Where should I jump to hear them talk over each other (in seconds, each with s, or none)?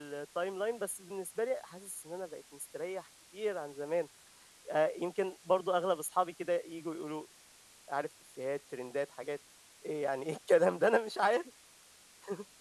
none